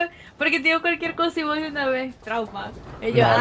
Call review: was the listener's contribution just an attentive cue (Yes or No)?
No